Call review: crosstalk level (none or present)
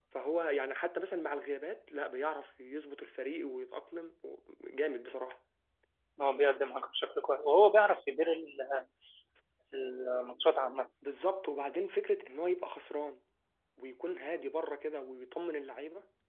none